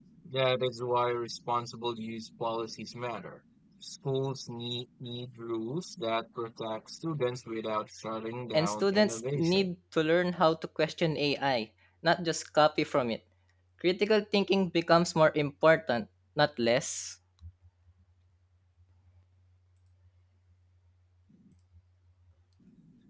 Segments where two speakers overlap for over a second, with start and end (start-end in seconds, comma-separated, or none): 8.5-9.7